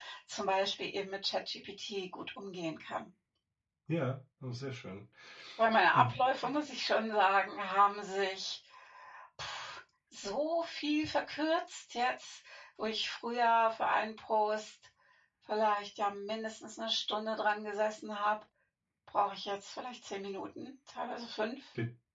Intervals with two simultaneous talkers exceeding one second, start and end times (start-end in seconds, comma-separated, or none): none